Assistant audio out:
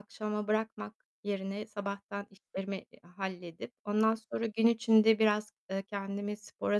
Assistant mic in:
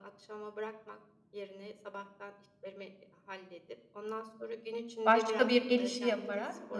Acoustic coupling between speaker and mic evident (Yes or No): Yes